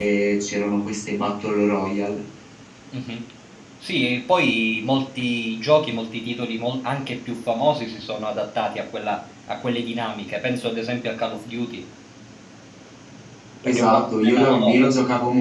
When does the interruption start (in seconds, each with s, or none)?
13.6 s